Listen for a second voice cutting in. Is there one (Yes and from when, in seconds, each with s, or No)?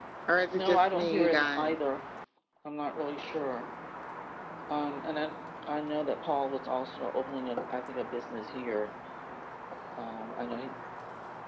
Yes, from 0.5 s